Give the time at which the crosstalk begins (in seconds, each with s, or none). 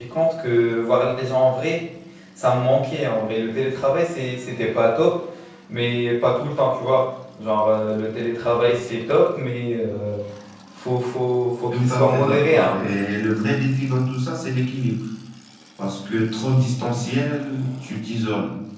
11.7 s